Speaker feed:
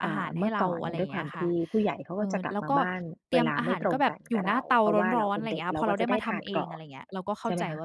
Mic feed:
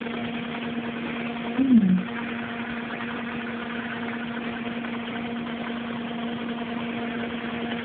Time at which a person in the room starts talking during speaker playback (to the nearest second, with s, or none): 2 s